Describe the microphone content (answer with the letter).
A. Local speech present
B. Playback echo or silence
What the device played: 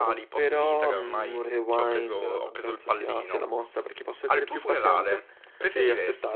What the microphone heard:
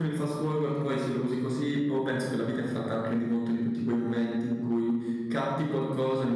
A